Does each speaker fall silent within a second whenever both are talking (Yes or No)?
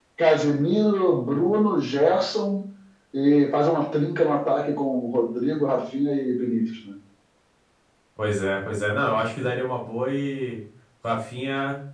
Yes